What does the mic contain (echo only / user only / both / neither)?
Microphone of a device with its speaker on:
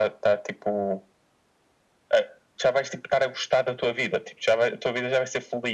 echo only